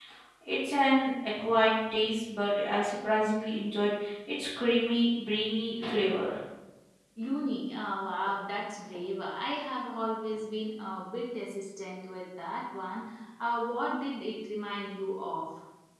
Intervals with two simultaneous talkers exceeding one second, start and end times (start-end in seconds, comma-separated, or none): none